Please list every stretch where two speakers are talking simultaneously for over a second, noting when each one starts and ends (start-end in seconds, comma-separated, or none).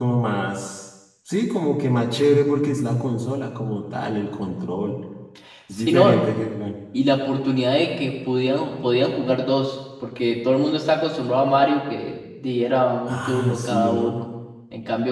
13.1-14.3